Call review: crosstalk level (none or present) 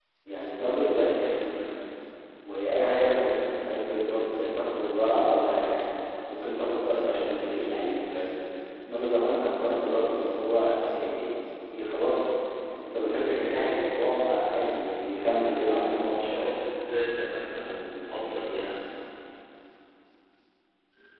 present